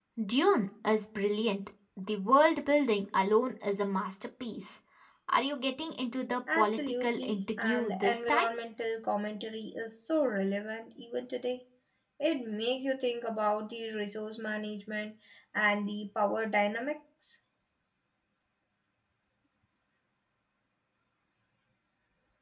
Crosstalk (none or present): present